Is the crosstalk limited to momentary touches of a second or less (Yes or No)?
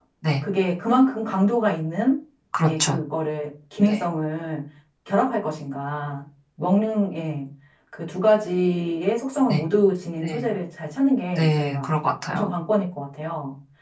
Yes